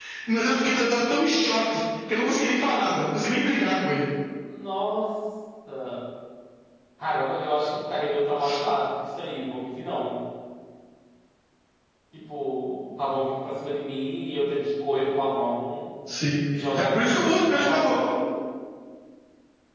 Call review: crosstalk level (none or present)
present